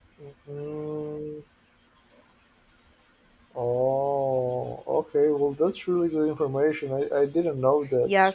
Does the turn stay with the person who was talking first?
No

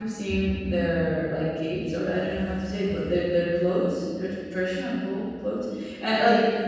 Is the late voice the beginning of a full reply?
No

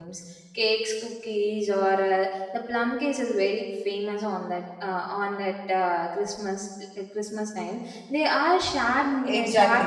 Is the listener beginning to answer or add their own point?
Yes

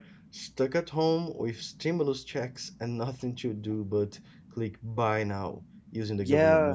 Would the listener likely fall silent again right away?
No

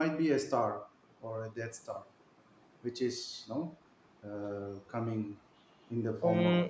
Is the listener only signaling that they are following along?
No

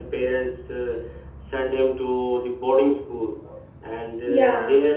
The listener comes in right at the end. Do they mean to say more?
No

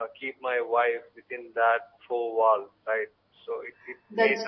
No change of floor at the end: Yes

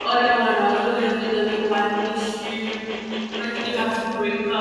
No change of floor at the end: Yes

